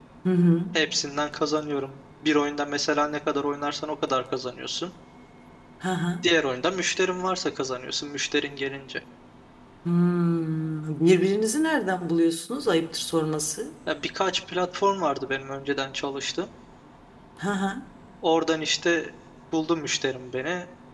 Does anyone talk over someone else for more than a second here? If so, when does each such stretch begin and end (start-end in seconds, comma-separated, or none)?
none